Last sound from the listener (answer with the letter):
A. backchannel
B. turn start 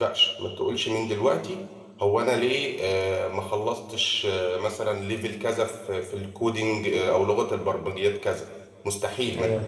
A